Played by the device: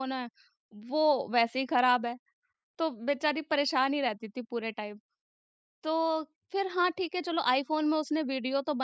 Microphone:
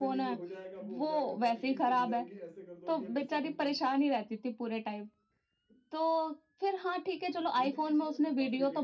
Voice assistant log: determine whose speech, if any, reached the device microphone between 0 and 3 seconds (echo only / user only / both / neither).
both